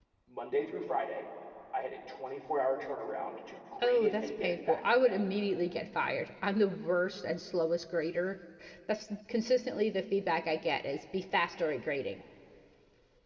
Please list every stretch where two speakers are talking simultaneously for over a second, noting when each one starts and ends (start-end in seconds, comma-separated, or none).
3.8-5.2